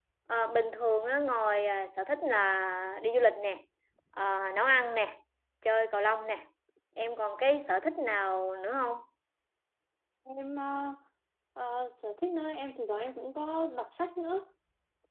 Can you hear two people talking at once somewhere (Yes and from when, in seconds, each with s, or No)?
No